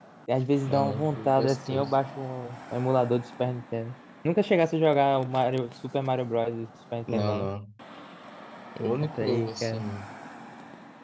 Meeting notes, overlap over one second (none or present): present